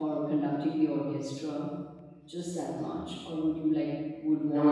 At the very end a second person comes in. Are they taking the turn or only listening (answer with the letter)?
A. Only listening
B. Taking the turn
A